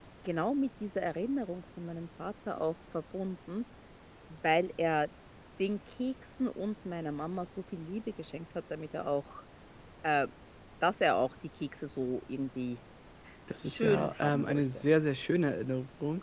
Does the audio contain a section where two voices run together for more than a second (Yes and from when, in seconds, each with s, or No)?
Yes, from 13.6 s